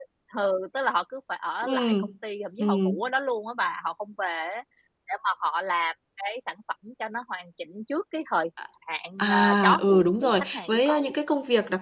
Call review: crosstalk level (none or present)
present